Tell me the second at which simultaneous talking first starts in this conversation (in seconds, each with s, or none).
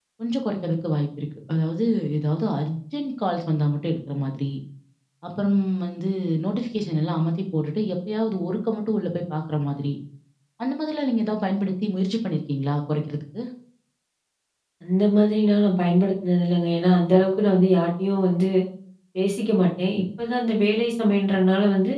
none